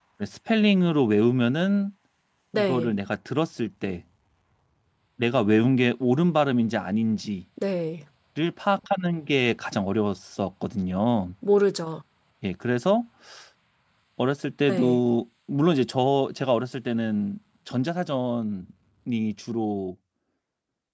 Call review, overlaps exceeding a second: none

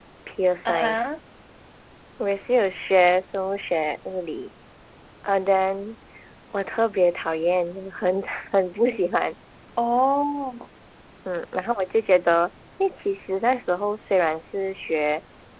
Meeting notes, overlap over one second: none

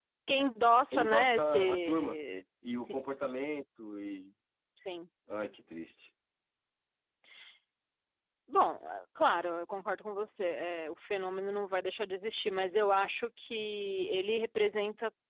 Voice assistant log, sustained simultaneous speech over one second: present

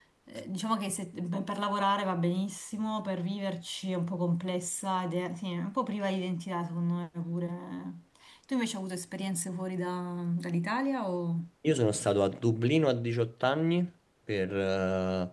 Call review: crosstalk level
none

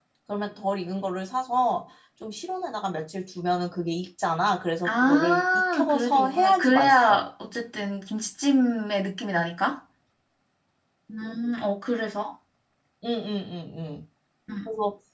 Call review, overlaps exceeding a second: present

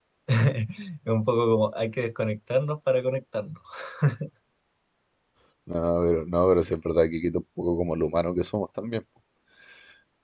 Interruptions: none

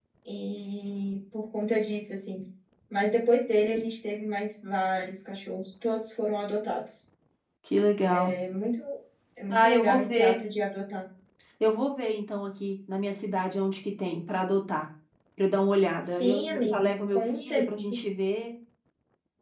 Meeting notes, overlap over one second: present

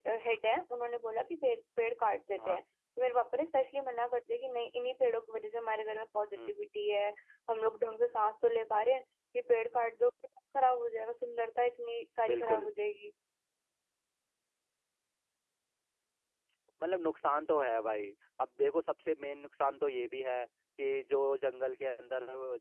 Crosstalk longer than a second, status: none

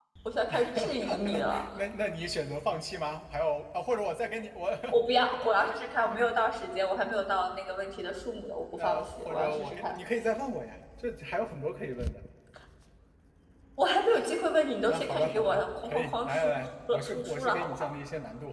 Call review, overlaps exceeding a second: present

